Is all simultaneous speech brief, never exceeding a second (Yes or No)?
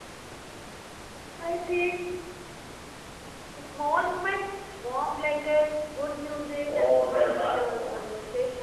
No